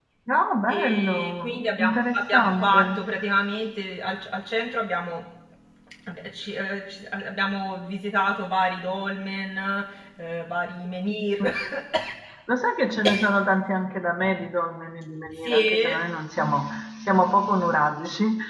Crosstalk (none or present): present